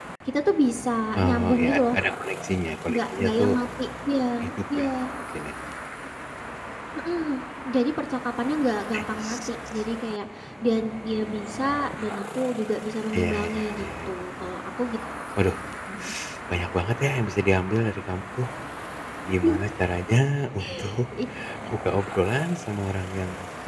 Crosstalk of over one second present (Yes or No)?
Yes